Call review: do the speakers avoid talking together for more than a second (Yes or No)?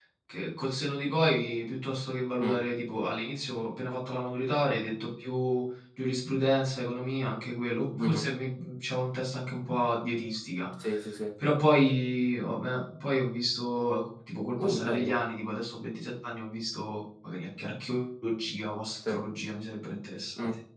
Yes